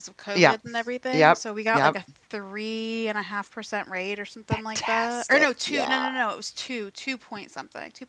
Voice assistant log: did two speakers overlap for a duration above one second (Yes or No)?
Yes